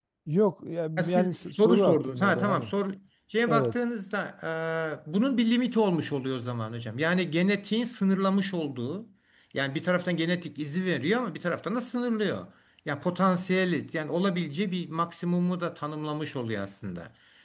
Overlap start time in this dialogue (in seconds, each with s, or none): 1.0 s